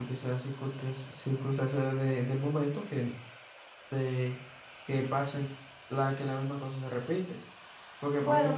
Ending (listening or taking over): listening